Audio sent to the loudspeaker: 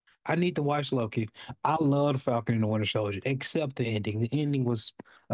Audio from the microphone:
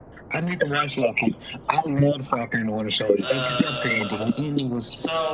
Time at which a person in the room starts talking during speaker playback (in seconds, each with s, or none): 3.2 s